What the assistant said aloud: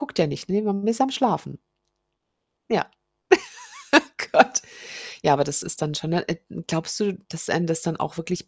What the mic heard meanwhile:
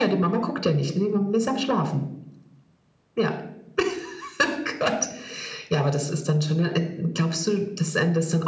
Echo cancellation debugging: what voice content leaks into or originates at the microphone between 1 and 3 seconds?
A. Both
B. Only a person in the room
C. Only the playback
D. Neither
C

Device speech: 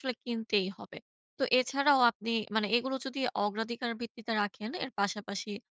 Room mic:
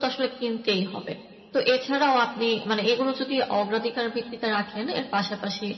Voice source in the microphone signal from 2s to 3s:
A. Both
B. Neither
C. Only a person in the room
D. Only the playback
D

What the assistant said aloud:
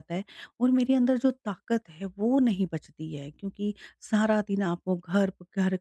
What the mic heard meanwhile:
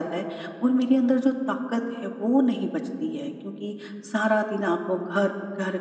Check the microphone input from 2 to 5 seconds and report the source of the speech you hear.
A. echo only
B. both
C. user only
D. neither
A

